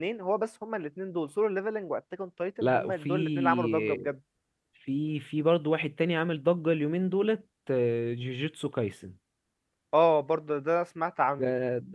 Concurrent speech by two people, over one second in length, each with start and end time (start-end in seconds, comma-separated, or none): 2.6-4.1